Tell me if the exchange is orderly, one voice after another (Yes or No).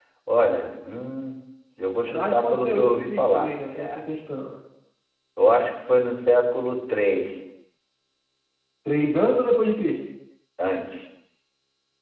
No